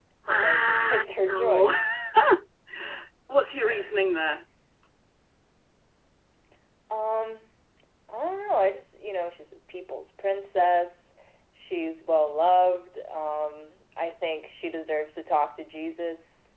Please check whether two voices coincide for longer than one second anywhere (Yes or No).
Yes